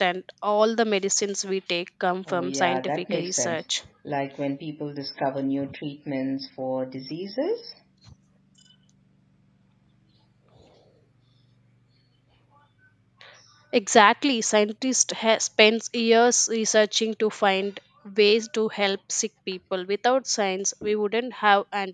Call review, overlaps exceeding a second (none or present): present